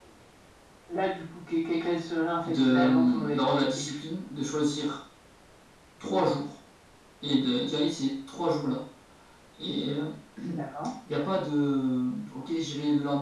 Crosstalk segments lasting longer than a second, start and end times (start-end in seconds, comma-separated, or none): 2.4-4.0